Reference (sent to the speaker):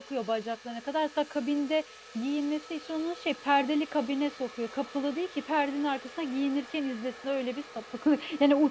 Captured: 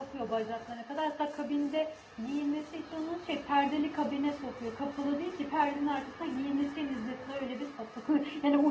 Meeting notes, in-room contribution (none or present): none